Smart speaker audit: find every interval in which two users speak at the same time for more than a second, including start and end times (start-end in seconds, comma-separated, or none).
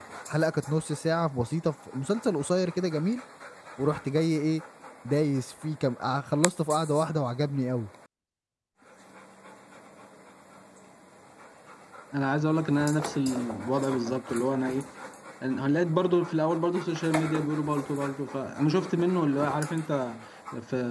none